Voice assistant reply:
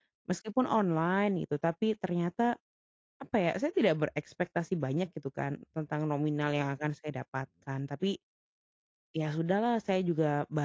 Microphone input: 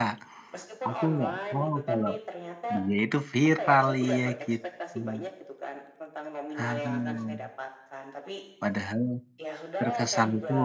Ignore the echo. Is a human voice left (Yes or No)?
Yes